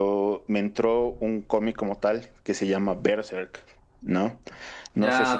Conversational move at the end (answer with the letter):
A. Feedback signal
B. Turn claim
B